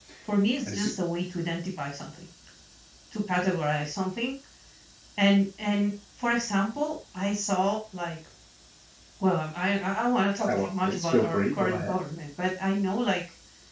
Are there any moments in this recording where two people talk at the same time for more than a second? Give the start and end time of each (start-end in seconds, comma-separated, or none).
10.5-12.0